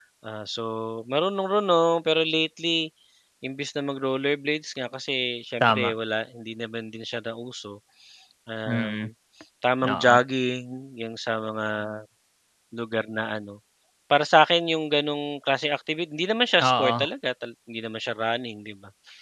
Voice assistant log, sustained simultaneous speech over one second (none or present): none